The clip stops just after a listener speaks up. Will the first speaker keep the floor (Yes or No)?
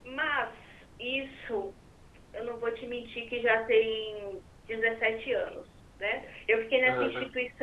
Yes